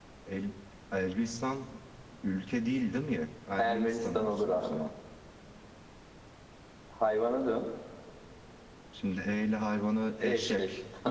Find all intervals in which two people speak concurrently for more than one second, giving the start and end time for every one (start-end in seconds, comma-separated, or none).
3.6-4.8